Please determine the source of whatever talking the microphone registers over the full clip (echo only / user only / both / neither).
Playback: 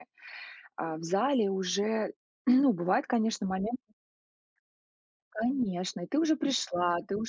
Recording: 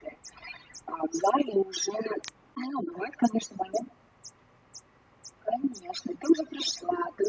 echo only